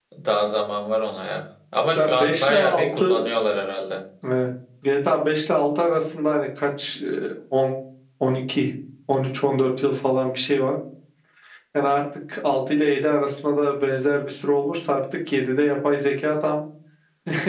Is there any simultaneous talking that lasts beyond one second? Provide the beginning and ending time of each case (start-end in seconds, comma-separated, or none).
2.0-3.2